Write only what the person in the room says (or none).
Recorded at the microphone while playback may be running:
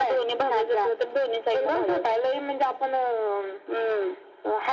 none